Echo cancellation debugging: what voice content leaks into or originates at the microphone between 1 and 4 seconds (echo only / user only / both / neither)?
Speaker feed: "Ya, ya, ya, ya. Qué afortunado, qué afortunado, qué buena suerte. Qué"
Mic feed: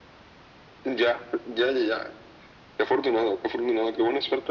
echo only